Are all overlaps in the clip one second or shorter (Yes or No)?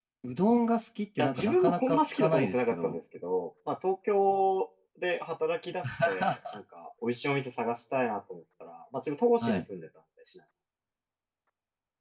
No